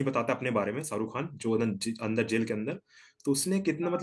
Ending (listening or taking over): listening